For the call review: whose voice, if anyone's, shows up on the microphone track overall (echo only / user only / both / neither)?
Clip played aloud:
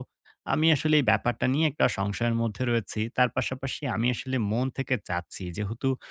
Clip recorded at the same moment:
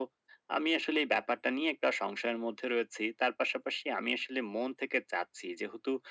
echo only